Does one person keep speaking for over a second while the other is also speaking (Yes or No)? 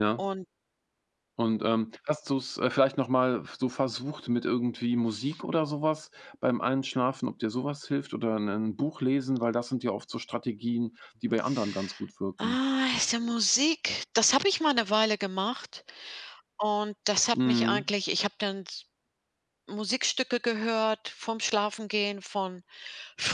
No